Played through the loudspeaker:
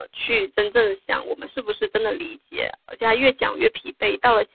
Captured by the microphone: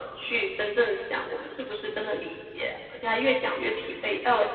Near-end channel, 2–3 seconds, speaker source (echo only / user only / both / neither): echo only